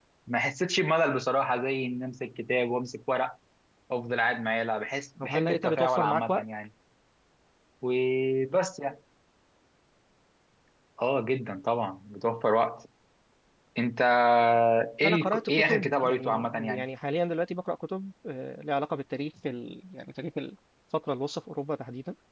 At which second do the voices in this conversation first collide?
5.2 s

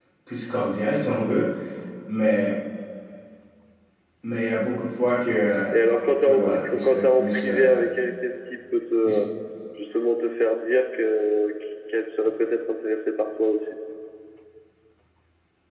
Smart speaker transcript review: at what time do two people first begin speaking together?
6.2 s

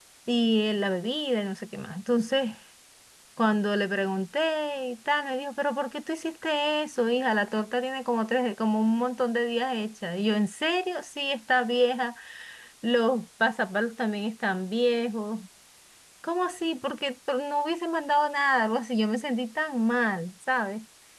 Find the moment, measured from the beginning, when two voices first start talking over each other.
none

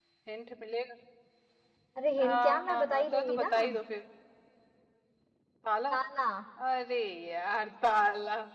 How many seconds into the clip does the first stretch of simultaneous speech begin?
2.2 s

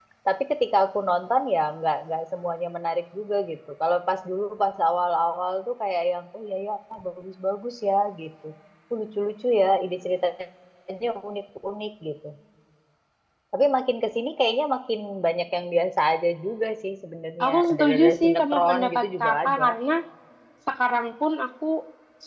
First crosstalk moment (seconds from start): 17.4 s

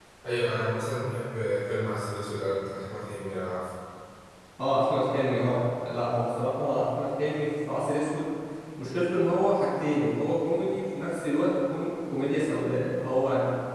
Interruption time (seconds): none

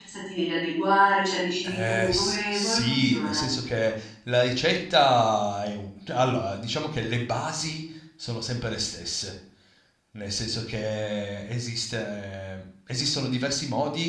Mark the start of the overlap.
1.6 s

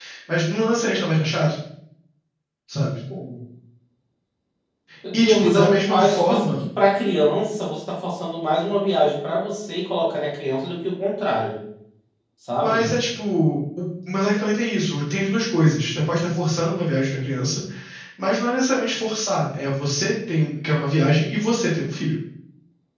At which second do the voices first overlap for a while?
5.1 s

